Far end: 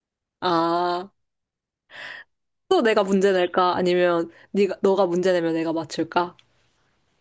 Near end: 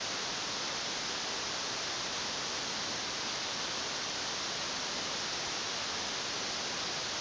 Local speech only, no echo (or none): none